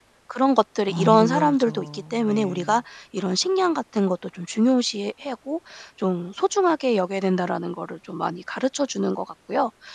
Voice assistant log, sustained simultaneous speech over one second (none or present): present